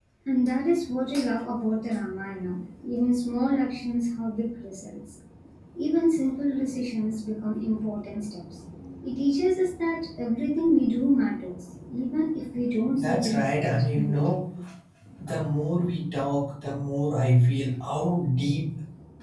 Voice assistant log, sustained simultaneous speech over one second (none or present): present